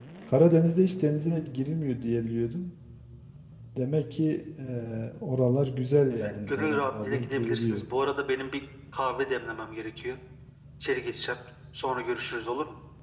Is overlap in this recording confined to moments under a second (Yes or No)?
No